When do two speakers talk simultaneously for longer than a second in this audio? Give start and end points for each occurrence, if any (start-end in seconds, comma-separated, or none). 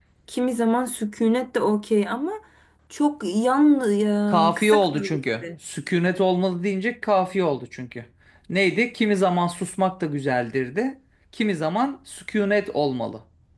4.3-5.5